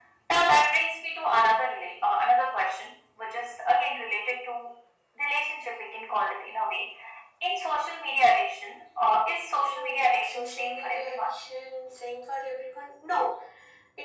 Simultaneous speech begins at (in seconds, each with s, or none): 9.5 s